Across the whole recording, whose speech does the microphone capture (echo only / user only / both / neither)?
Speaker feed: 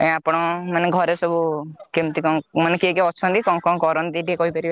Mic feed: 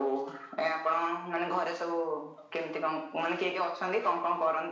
echo only